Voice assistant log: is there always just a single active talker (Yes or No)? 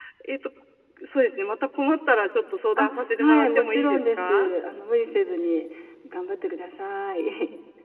No